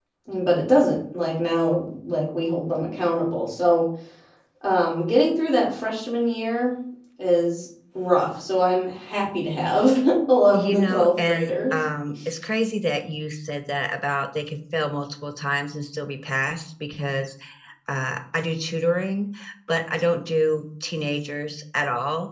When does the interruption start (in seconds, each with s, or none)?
10.5 s